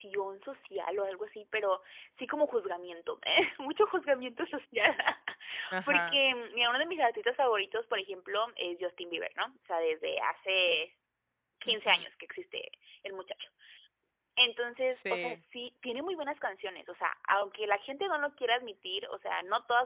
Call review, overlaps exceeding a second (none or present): none